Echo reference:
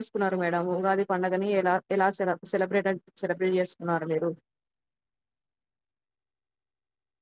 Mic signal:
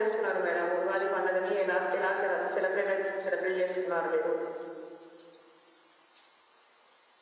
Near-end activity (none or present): none